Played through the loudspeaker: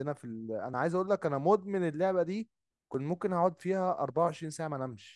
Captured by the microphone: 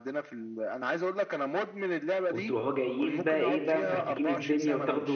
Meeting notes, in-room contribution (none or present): present